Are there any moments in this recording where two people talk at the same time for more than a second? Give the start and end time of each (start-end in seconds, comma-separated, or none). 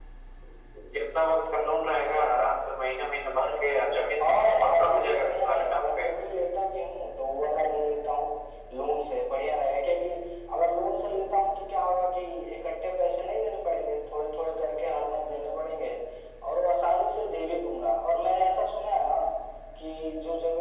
4.3-6.0